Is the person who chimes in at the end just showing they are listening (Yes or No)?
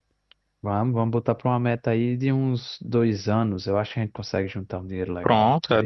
No